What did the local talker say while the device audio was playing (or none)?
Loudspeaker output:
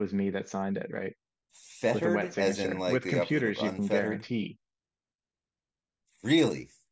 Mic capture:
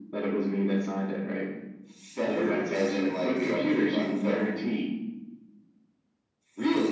none